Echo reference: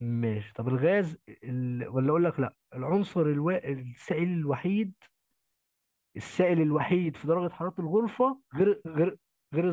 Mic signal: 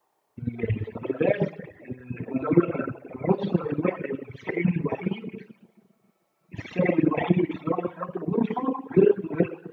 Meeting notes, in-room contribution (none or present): none